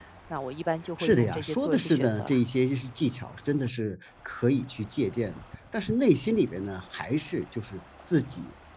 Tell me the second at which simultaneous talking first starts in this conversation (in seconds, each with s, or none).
1.0 s